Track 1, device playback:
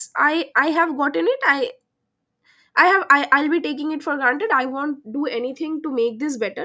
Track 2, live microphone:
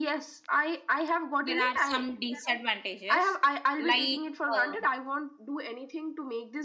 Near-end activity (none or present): present